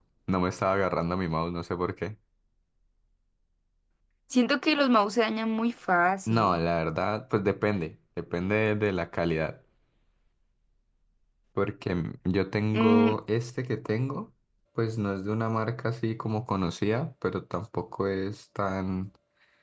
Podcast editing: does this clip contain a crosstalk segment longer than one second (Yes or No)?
No